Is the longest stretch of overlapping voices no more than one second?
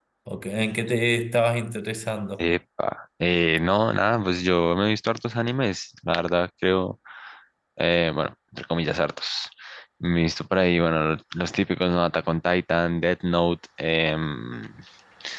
Yes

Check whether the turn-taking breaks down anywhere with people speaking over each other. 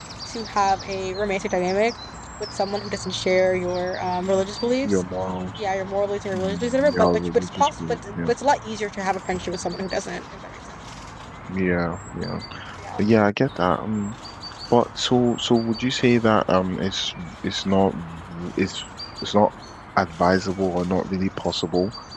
Yes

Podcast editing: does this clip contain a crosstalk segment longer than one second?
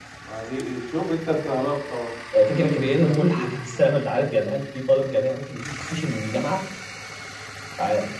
Yes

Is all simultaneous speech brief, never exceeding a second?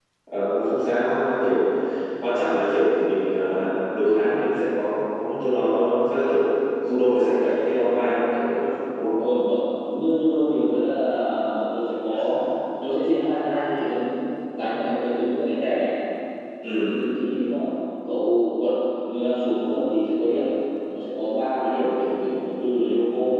Yes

